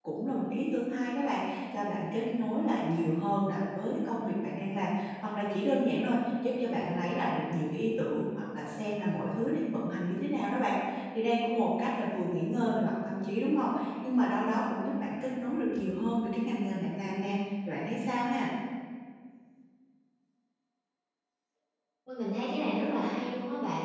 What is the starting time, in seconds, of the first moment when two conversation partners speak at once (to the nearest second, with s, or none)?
none